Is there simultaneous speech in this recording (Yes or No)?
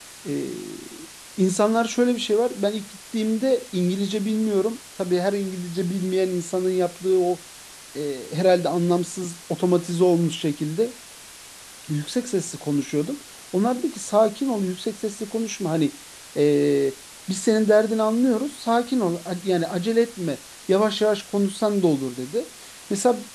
No